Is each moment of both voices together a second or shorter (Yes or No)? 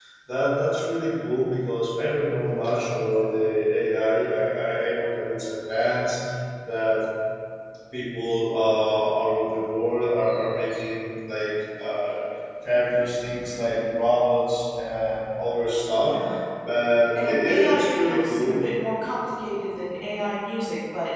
No